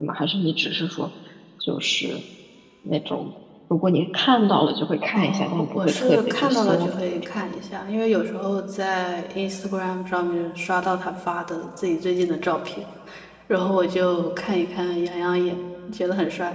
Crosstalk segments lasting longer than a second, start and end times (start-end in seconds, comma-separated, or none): 5.1-6.9